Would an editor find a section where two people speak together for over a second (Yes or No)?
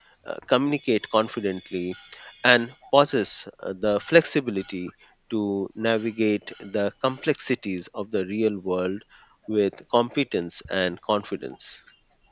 No